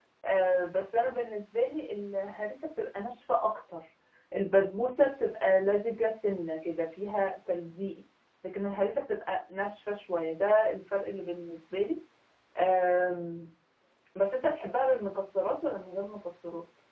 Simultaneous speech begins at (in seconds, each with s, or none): none